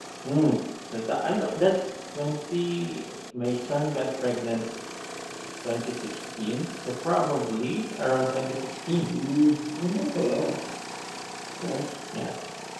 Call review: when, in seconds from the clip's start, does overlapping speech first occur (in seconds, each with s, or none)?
none